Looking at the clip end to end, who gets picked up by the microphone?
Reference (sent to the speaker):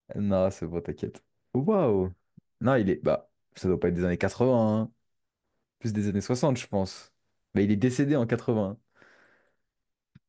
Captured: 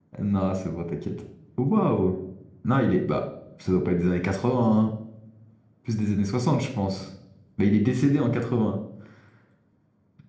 echo only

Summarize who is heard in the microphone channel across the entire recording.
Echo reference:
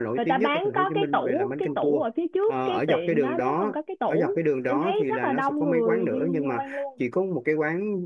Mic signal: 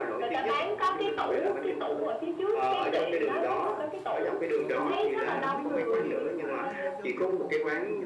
both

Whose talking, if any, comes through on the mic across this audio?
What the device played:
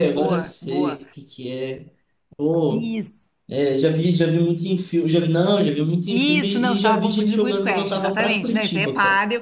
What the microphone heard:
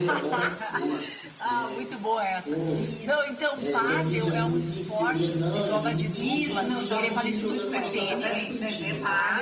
both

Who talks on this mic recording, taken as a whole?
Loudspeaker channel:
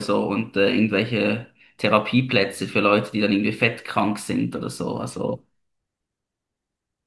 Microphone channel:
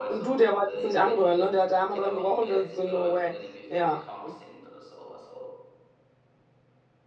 both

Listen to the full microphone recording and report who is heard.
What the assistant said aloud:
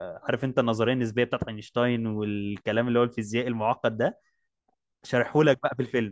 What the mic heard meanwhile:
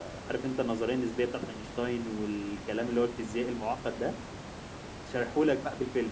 echo only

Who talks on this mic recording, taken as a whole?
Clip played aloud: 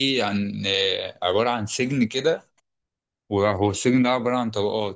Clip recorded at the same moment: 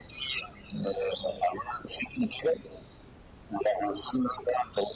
echo only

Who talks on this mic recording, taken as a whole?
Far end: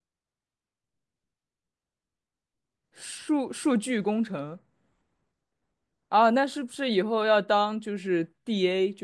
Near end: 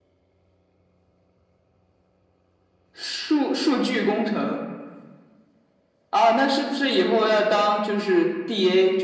echo only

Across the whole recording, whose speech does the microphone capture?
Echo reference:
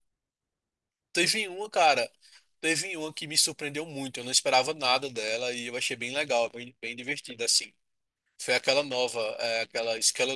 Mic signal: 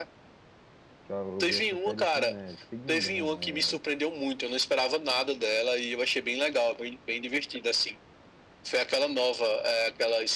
both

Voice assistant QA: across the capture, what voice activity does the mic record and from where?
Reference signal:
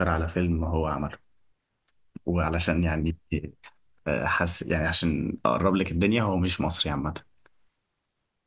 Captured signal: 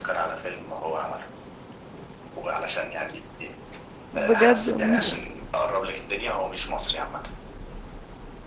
both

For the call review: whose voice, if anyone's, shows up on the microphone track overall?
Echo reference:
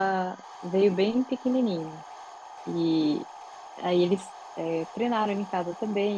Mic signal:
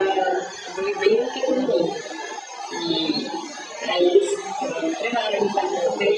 echo only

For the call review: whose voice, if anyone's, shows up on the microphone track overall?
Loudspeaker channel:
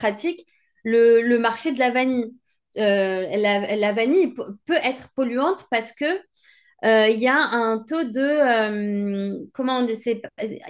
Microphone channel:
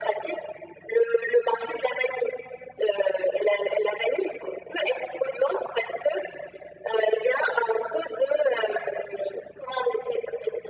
echo only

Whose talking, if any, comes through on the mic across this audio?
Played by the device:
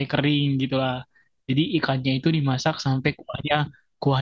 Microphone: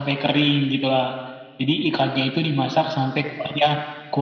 echo only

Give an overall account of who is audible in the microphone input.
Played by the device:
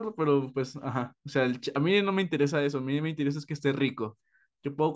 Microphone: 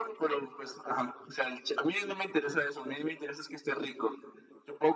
echo only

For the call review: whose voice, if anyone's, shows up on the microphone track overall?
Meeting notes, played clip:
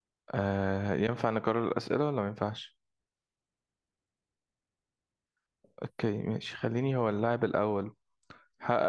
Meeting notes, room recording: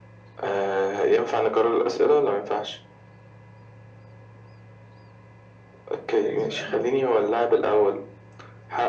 both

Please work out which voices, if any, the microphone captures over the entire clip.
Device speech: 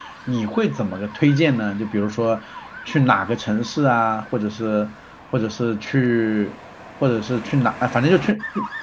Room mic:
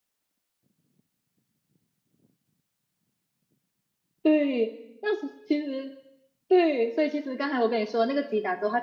user only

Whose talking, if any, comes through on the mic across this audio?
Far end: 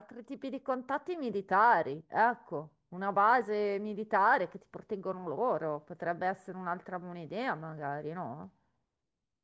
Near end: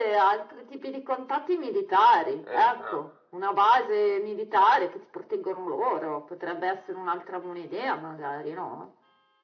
both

